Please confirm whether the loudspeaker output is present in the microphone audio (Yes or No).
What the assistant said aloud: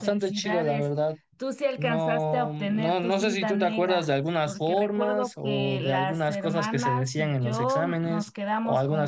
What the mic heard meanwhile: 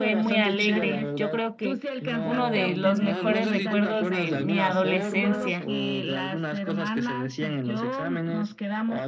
Yes